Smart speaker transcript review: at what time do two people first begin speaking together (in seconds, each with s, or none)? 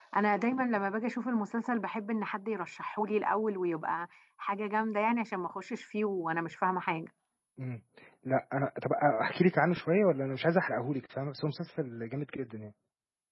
none